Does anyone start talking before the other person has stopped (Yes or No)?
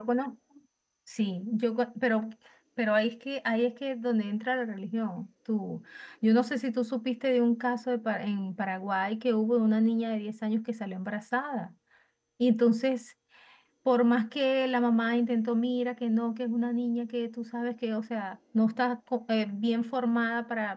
No